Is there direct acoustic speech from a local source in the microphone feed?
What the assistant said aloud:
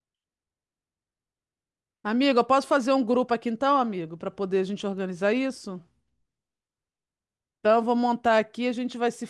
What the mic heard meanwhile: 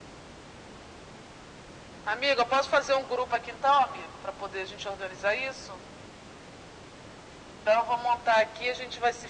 No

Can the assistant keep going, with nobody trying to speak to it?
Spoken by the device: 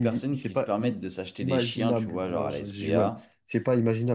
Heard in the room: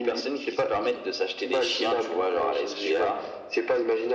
Yes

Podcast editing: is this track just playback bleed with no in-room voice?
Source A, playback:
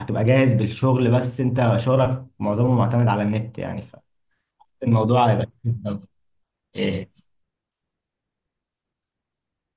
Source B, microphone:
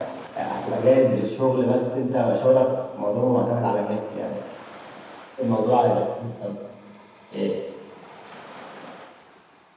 Yes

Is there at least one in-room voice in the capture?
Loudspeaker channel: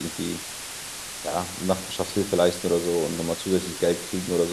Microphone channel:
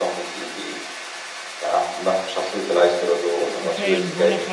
Yes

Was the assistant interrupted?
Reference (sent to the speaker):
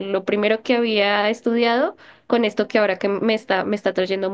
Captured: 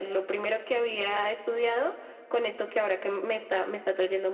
No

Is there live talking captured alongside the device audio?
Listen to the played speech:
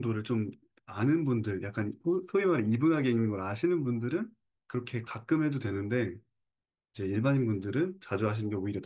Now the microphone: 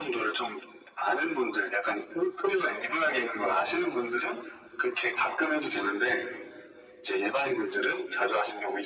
No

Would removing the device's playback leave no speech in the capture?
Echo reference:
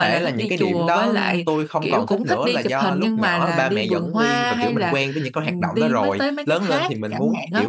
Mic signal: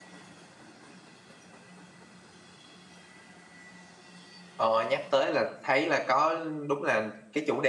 No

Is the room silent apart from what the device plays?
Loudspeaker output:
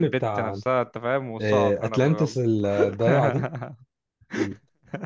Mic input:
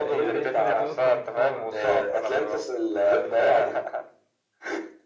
No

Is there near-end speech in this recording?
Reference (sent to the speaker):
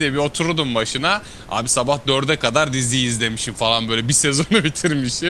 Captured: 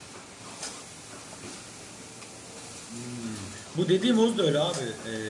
Yes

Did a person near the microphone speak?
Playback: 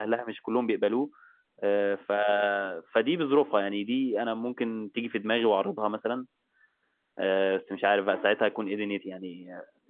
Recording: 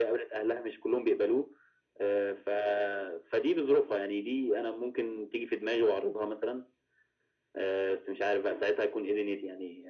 No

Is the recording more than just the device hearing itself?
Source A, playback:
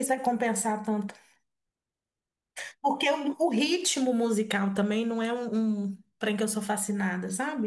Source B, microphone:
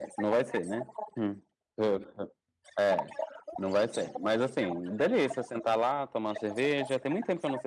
Yes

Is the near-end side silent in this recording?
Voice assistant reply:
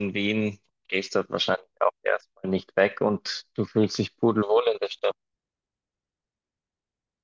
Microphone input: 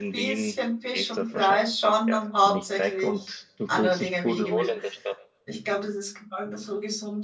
No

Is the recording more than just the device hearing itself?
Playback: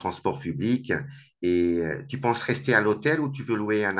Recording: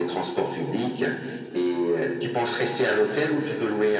No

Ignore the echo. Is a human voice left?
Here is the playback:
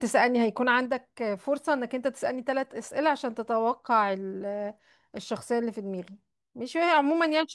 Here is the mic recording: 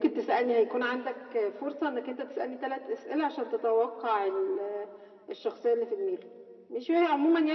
No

